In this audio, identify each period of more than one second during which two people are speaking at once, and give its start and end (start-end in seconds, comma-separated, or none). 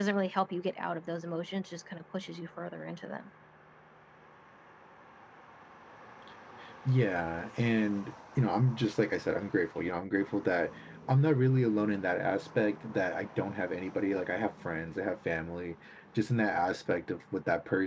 none